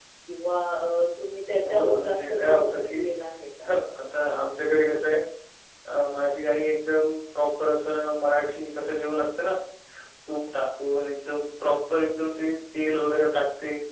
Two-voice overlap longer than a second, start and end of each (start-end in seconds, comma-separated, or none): 1.6-3.0